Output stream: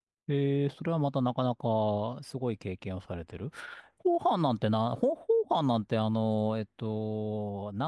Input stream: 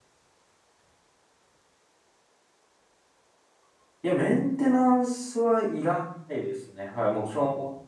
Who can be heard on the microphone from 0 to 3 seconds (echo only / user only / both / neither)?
neither